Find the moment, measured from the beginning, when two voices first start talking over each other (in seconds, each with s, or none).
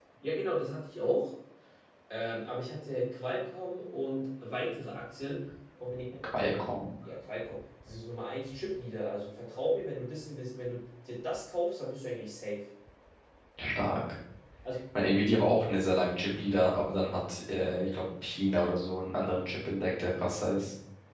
none